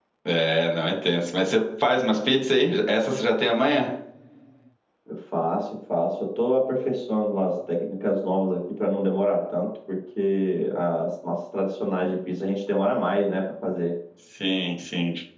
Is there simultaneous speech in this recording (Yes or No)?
No